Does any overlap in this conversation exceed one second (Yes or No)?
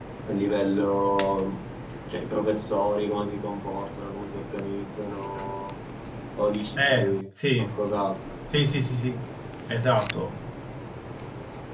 No